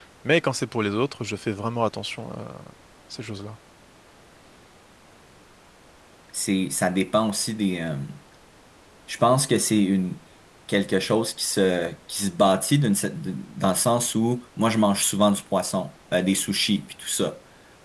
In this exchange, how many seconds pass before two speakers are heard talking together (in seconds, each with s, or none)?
none